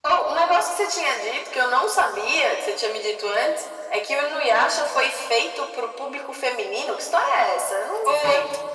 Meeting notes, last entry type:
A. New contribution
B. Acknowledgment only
A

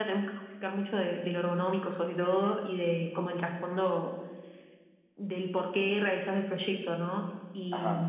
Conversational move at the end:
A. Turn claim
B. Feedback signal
B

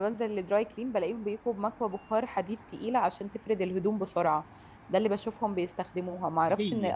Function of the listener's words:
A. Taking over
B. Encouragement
B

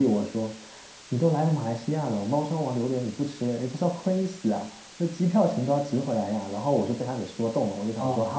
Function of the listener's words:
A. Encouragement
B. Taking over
A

